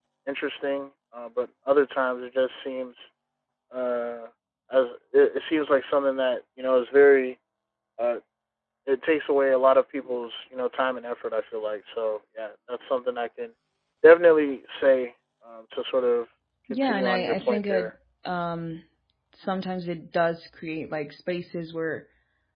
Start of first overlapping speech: 16.7 s

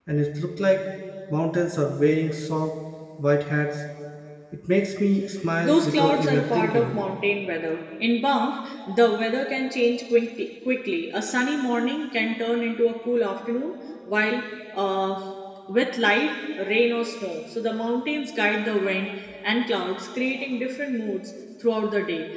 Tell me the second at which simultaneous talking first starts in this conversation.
5.6 s

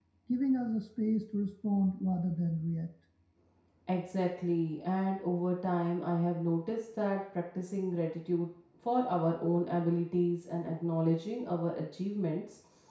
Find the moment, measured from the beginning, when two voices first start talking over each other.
none

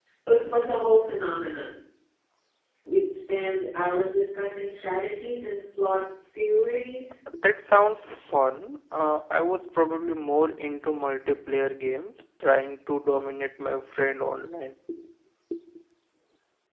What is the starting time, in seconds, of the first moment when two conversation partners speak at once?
none

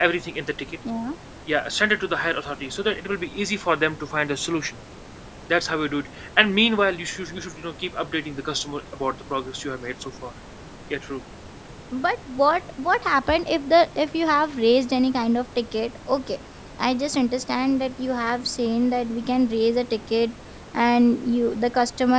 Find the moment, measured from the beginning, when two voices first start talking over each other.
none

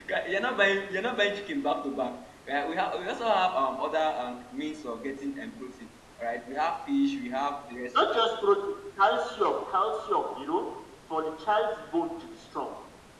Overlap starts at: none

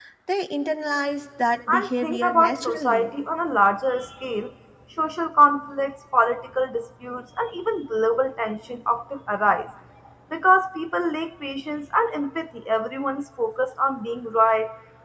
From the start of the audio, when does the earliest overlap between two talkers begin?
1.7 s

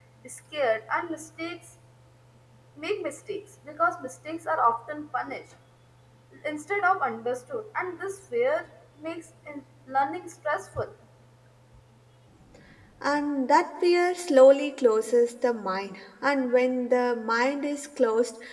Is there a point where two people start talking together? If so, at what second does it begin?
none

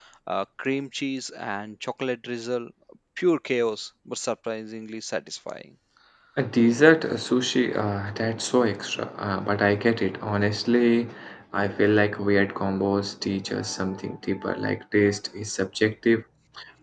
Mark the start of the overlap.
none

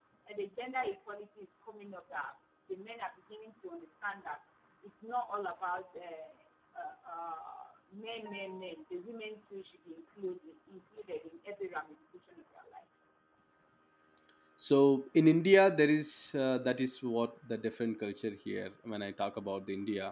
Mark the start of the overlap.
none

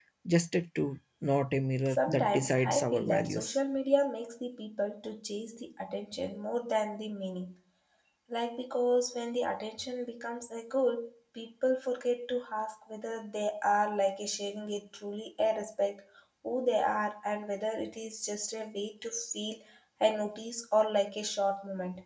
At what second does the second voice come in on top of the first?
1.9 s

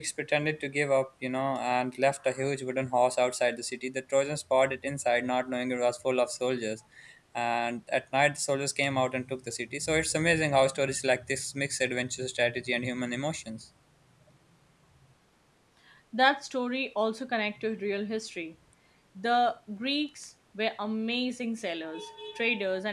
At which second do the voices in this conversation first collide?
none

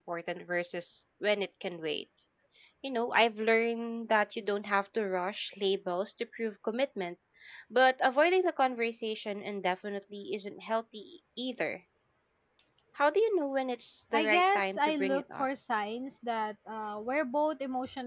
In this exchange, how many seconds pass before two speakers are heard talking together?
14.1 s

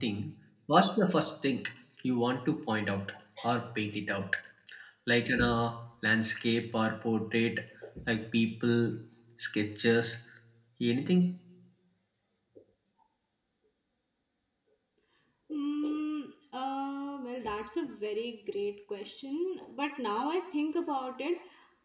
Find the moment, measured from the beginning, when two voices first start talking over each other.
none

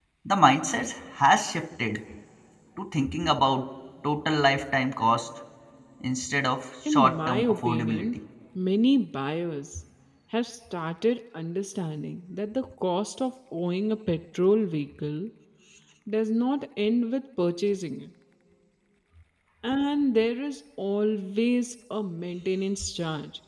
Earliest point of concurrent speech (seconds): 6.9 s

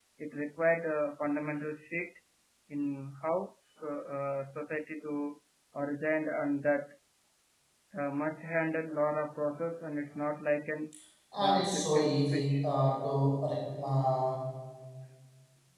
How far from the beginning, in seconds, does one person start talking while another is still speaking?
11.4 s

